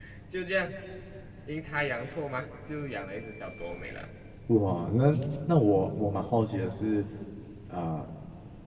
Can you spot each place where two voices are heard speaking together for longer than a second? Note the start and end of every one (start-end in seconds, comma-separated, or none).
none